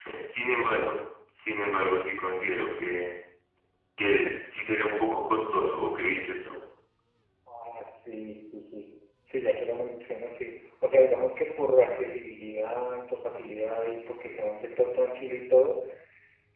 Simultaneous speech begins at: none

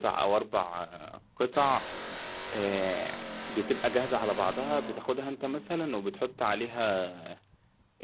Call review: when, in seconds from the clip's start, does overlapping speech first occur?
none

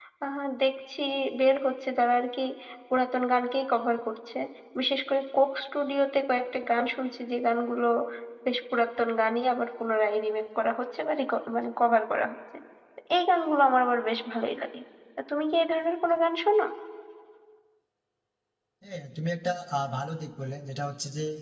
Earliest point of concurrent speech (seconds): none

